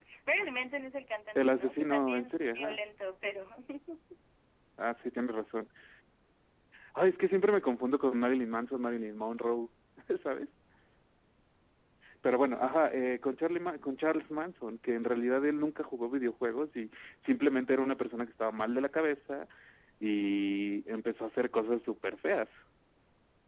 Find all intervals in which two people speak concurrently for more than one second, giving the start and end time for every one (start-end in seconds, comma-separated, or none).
1.4-2.8